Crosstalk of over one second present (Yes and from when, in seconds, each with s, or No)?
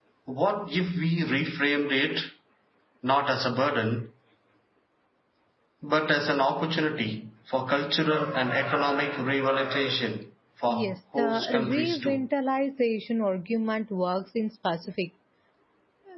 Yes, from 10.7 s